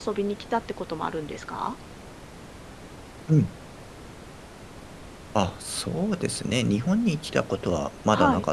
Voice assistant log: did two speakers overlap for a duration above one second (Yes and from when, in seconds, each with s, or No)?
No